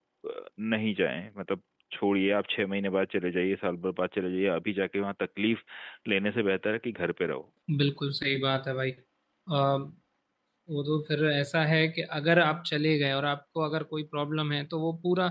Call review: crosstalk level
none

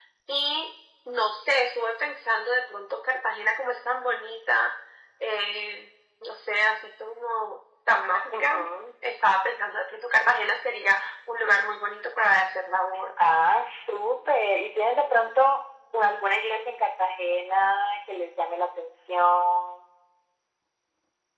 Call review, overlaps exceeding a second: none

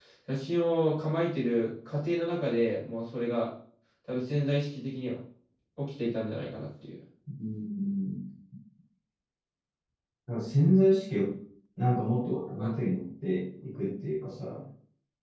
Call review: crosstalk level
none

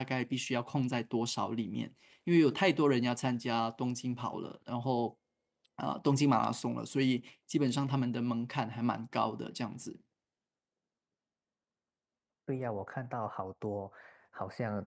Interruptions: none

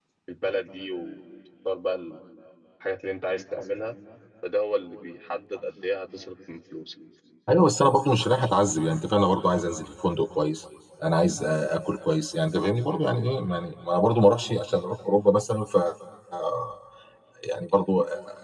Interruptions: none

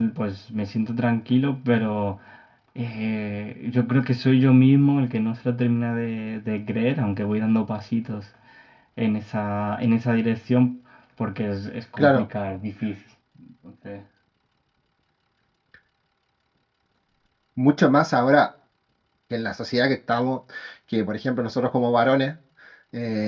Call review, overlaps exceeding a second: none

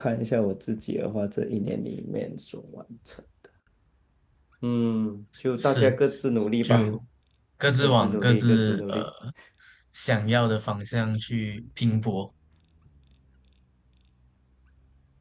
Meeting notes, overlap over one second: present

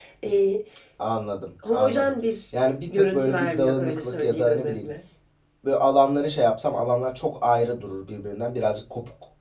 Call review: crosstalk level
present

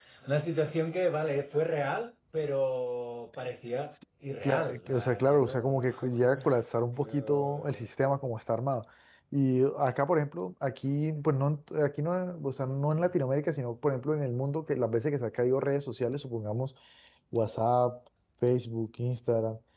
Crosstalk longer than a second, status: present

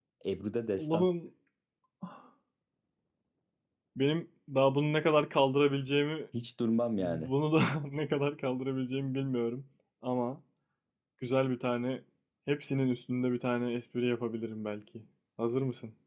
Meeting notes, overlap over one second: none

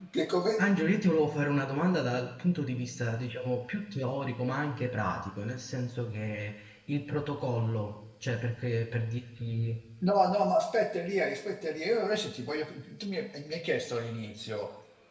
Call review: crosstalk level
none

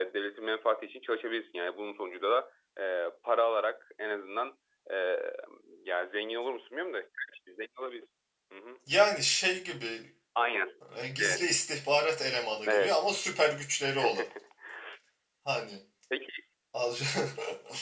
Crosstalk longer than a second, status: none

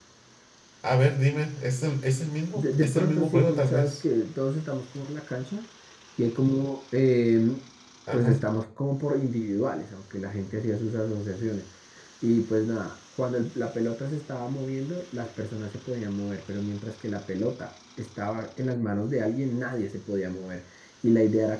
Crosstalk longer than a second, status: present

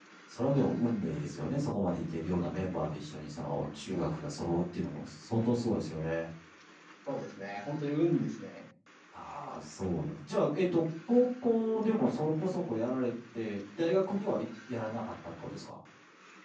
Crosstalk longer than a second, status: none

